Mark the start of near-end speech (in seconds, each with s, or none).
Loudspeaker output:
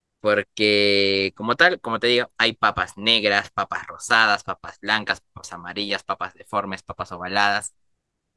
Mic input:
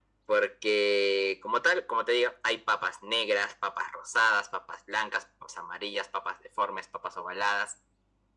none